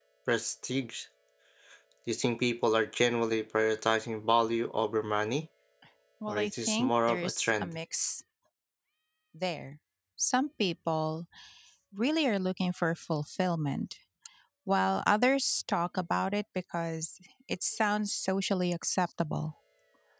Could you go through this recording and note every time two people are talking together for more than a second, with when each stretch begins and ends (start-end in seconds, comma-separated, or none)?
6.3-7.7